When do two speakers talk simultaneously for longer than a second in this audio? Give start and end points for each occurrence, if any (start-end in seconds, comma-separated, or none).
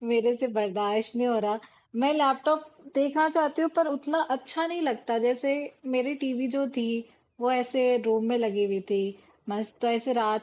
none